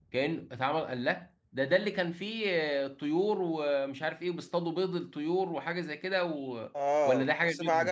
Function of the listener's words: taking over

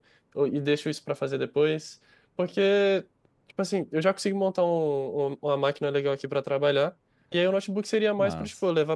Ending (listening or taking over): listening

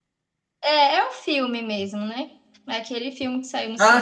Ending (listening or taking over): taking over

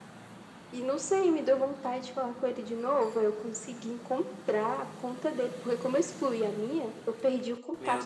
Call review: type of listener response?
listening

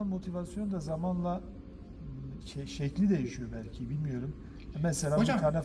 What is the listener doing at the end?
listening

